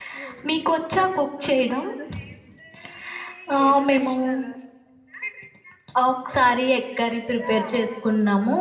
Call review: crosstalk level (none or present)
present